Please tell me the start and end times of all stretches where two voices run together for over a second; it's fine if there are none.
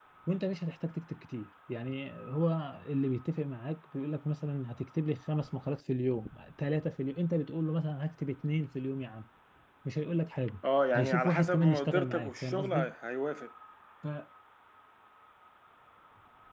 10.9-12.9

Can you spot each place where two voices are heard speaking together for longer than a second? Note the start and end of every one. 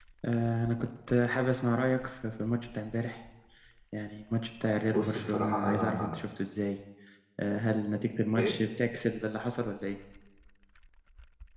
4.9-6.1

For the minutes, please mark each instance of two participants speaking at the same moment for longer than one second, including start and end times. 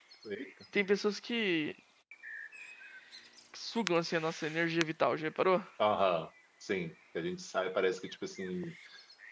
none

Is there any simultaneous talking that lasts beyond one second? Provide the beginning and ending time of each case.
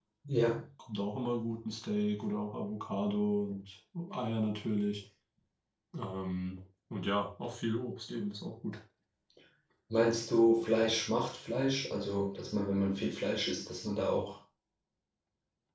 none

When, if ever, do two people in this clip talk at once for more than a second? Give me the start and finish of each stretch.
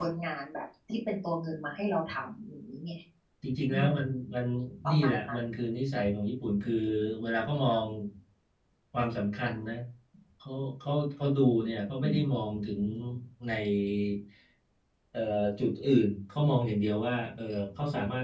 none

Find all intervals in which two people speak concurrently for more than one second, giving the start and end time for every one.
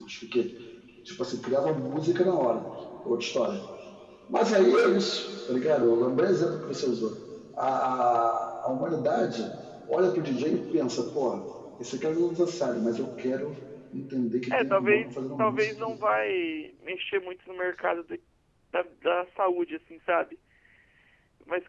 14.5-16.0

